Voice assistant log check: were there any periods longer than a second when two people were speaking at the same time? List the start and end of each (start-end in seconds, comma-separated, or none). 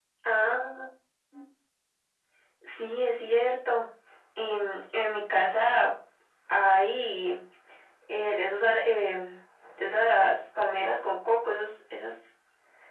none